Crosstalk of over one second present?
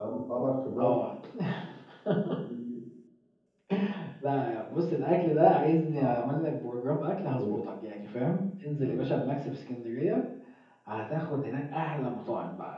No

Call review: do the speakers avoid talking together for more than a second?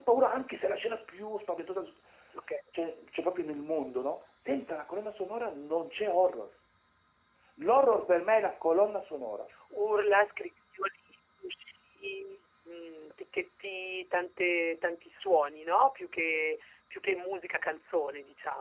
Yes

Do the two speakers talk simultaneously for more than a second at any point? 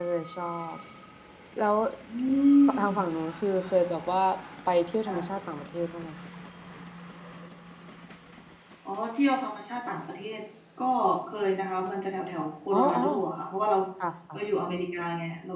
No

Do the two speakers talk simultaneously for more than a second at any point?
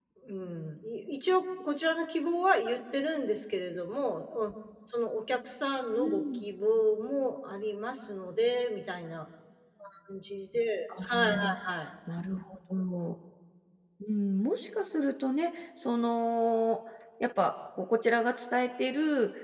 No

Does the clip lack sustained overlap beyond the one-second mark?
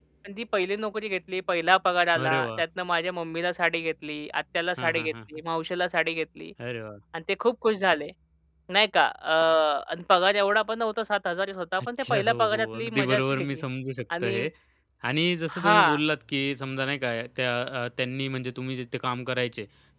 No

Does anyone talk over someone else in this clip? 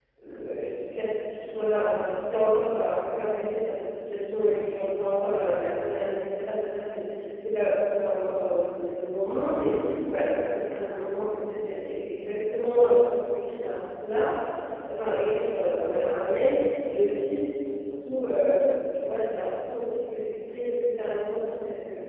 No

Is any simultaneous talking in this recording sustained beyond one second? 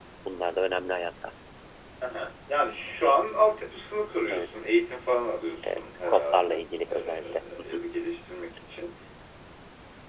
Yes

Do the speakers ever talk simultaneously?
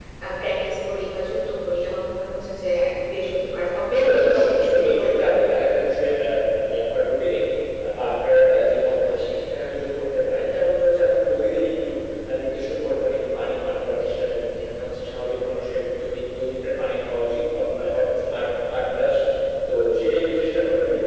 Yes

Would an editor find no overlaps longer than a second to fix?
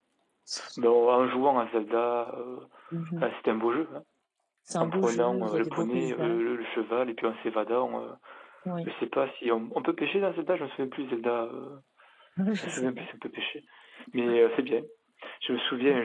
No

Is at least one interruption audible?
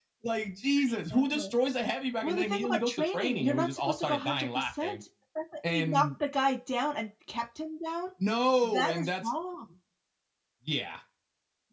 Yes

